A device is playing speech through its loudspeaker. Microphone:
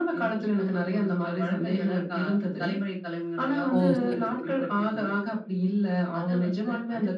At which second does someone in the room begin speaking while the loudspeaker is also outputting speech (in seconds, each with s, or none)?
3.8 s